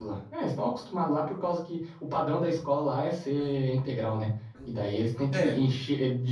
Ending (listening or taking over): listening